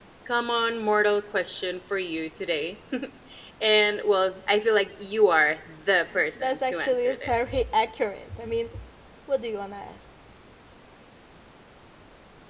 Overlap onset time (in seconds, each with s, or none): 6.4 s